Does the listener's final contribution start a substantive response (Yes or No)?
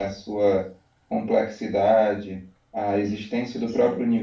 No